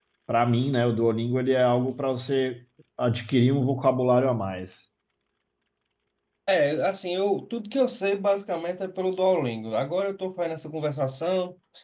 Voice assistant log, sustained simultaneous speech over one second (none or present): none